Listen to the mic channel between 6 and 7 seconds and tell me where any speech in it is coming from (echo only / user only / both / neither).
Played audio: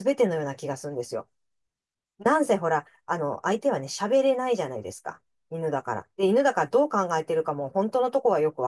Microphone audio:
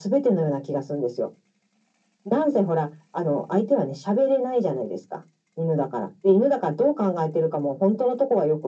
echo only